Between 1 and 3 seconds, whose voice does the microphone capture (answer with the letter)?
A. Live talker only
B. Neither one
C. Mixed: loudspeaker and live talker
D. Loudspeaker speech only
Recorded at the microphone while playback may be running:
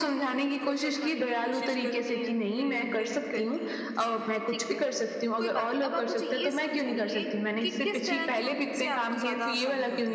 C